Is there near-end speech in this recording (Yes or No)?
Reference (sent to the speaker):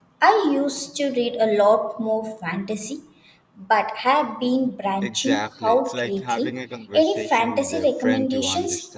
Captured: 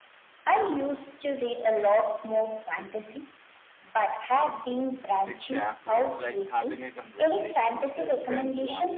No